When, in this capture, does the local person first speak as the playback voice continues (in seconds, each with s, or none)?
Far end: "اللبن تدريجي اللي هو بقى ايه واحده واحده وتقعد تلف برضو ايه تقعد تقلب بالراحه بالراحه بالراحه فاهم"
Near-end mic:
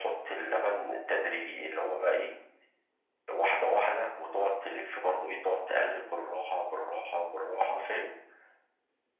none